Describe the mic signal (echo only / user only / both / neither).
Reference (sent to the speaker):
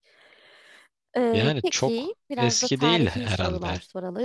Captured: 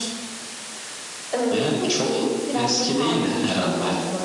echo only